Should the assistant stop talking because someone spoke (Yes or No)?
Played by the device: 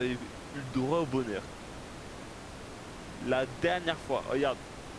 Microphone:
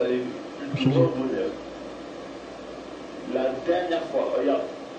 Yes